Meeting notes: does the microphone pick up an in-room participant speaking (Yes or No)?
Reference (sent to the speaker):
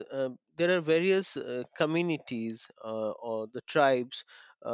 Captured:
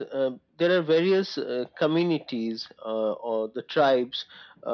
No